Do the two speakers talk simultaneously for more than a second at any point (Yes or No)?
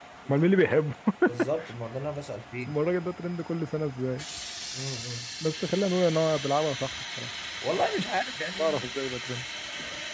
No